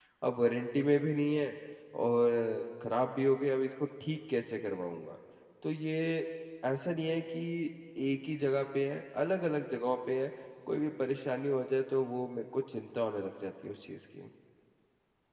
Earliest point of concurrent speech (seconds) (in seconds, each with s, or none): none